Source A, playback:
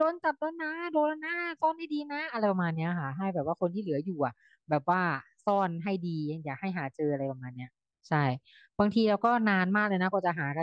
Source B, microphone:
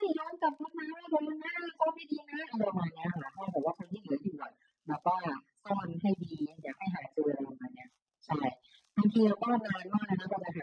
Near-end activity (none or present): none